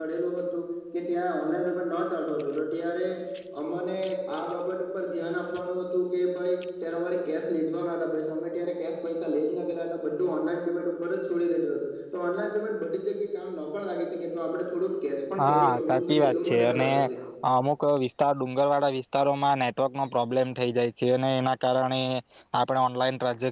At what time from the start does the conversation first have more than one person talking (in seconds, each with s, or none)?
15.4 s